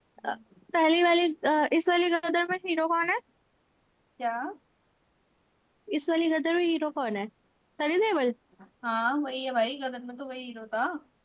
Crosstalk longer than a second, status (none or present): none